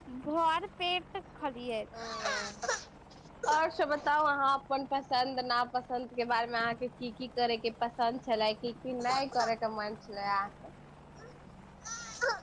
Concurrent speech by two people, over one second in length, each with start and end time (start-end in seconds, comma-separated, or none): none